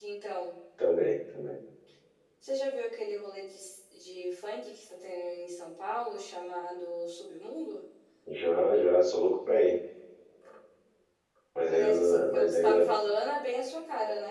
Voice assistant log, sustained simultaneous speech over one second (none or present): present